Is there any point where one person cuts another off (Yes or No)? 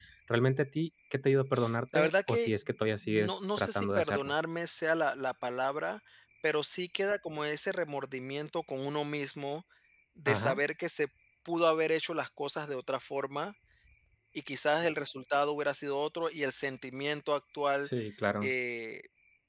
Yes